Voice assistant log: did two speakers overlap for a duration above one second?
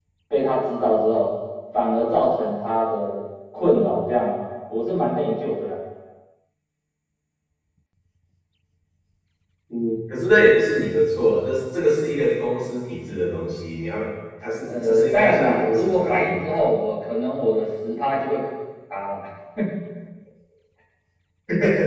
Yes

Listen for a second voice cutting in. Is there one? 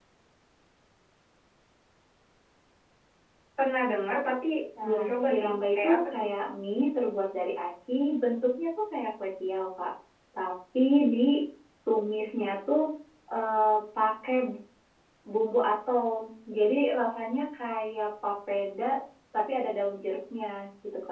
Yes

